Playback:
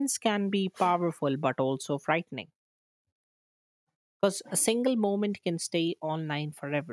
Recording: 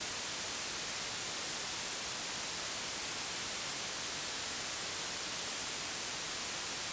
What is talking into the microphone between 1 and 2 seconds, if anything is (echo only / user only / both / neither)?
neither